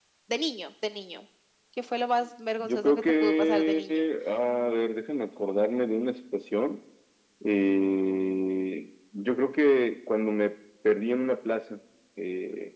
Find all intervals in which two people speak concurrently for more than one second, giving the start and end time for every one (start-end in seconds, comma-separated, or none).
2.6-4.0